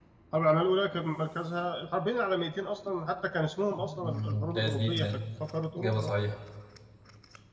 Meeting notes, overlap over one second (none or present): present